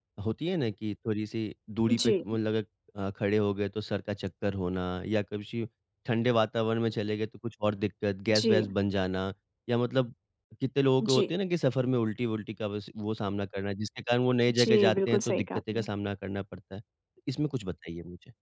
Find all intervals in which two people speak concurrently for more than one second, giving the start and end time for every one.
14.5-15.8

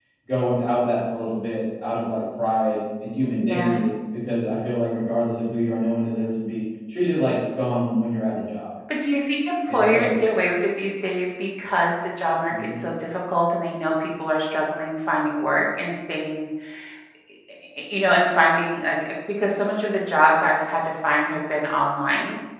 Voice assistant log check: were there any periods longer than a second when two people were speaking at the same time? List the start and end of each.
none

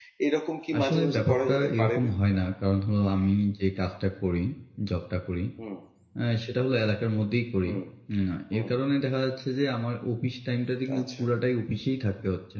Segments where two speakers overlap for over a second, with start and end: 0.8-2.1

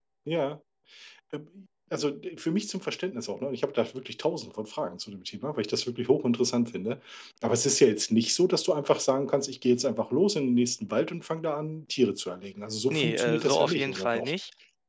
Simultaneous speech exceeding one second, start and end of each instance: 12.9-14.3

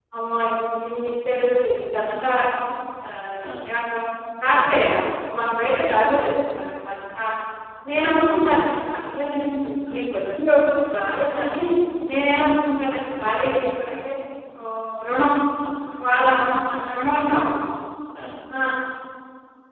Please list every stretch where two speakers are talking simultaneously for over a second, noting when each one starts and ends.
9.2-10.4

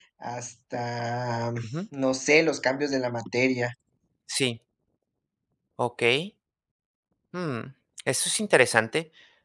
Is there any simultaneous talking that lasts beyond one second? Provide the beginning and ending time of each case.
none

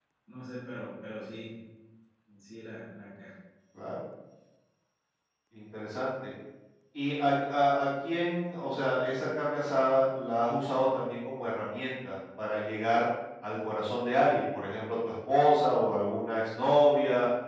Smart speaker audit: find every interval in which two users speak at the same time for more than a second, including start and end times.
none

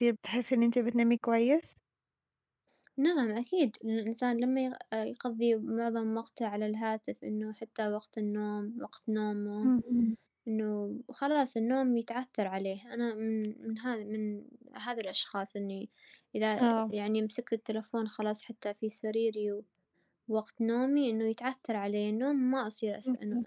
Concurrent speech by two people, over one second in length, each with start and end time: none

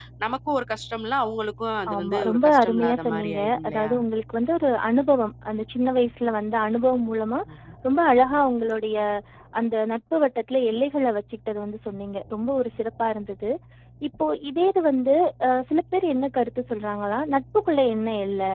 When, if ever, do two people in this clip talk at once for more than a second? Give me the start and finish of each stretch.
1.9-3.9

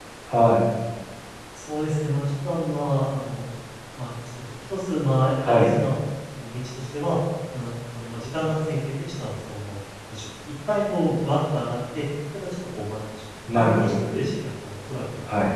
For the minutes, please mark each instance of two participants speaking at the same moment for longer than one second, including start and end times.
none

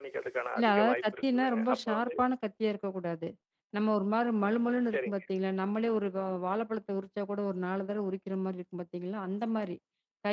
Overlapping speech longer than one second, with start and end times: 0.6-2.1

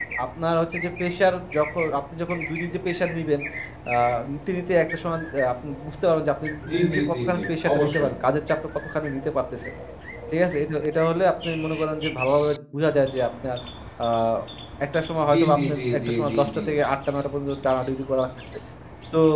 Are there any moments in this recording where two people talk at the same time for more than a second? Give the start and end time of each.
6.8-8.1, 15.3-16.6

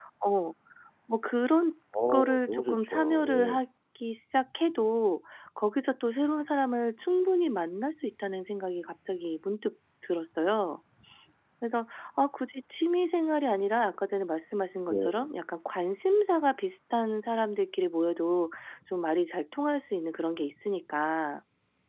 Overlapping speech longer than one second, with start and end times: 2.1-3.6

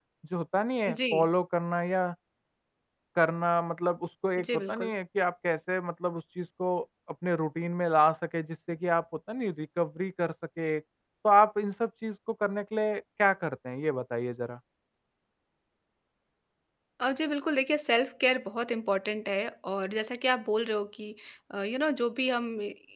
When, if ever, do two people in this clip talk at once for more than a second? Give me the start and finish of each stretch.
none

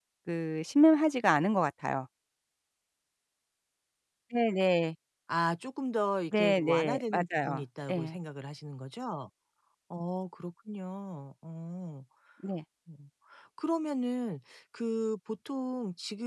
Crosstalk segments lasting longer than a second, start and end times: 6.3-8.2

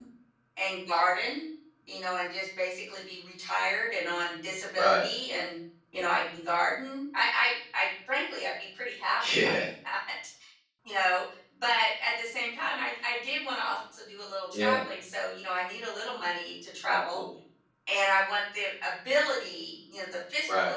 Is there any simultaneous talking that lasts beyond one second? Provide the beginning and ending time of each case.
none

